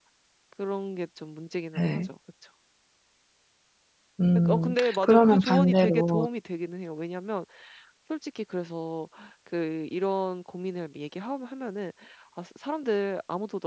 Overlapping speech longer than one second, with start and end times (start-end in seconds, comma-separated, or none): 4.3-6.3